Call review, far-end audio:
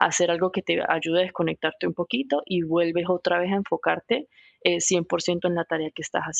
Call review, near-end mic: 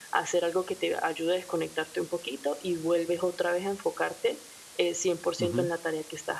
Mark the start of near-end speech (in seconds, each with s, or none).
5.4 s